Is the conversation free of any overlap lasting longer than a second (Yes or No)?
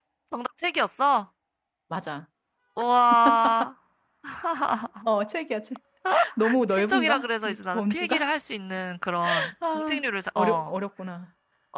No